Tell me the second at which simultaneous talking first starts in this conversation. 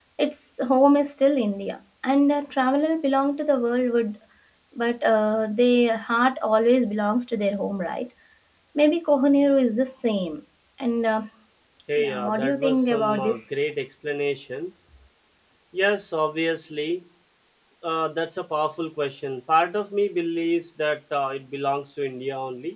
12.1 s

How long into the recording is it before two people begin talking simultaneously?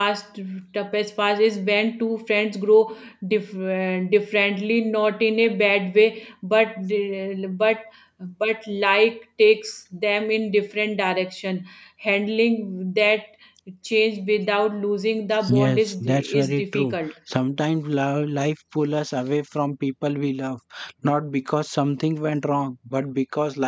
15.4 s

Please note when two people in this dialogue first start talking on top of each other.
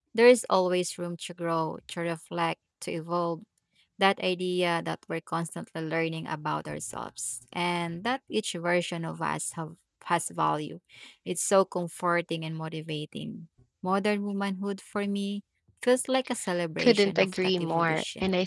16.8 s

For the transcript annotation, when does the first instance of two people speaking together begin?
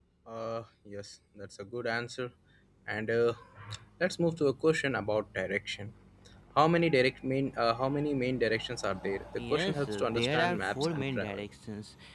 9.4 s

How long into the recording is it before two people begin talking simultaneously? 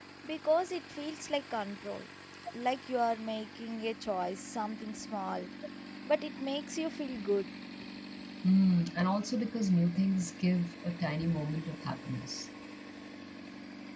none

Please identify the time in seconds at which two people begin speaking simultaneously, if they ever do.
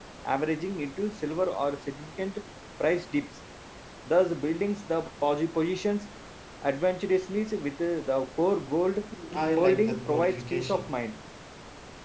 9.6 s

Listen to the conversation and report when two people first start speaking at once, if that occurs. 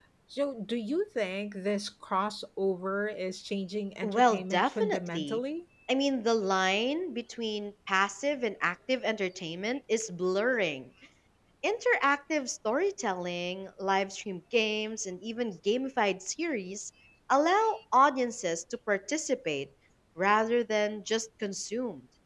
4.0 s

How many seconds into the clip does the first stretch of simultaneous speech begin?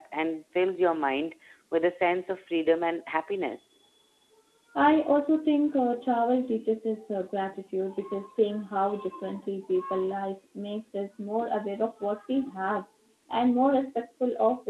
none

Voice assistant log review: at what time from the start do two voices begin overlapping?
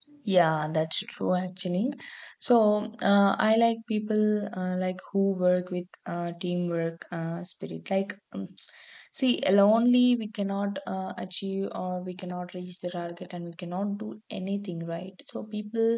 none

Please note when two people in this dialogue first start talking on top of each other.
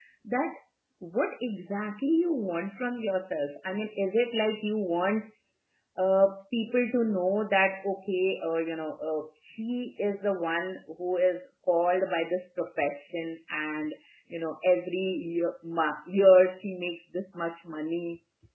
none

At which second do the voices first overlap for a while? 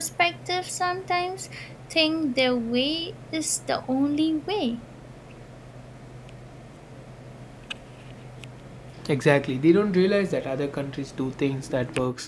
none

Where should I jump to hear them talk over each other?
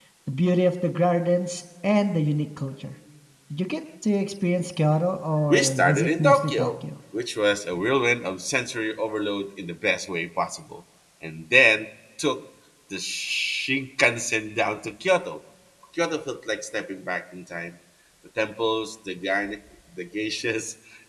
5.5 s

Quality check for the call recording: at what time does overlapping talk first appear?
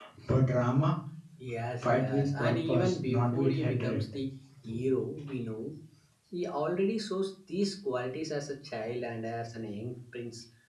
1.8 s

